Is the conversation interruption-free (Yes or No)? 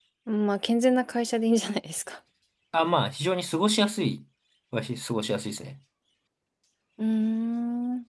Yes